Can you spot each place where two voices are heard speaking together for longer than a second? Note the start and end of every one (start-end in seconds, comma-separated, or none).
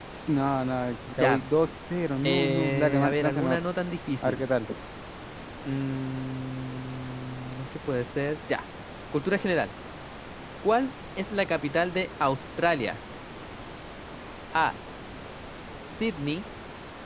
2.2-3.6